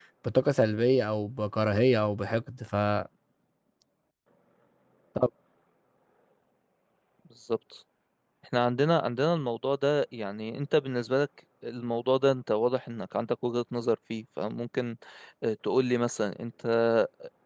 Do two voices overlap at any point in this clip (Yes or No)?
No